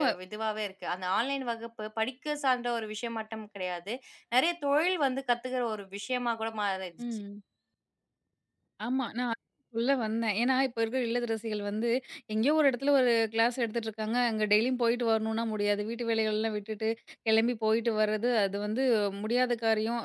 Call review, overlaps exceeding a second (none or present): none